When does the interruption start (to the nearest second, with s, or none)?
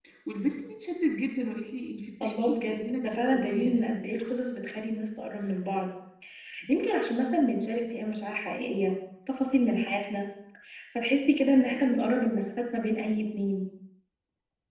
2 s